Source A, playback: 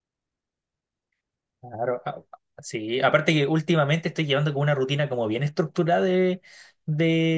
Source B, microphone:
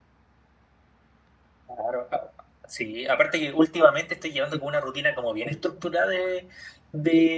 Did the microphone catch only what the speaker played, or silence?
Yes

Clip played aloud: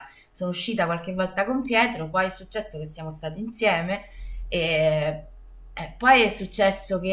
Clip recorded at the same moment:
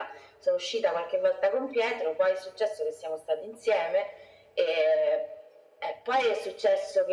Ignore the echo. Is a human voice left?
No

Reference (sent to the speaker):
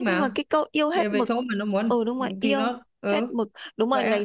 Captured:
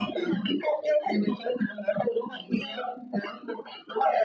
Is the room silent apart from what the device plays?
Yes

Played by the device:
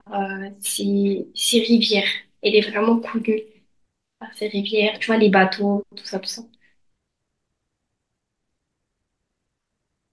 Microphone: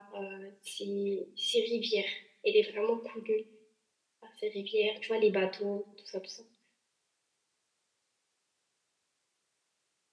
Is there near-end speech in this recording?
No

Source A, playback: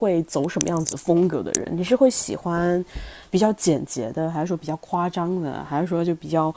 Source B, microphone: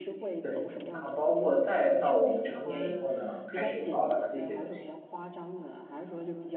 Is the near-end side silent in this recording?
No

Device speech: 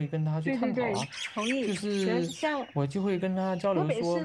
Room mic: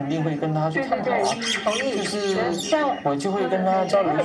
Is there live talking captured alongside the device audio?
Yes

